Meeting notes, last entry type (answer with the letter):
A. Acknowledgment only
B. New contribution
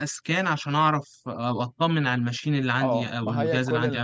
B